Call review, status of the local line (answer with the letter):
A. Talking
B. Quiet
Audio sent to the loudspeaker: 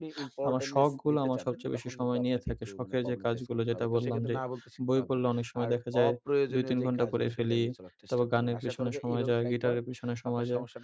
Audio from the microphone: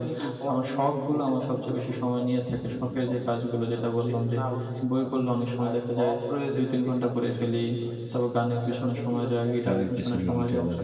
A